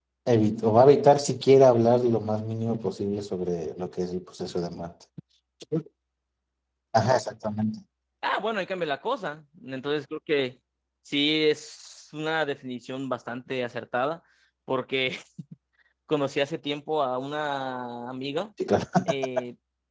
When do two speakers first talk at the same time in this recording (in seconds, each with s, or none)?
none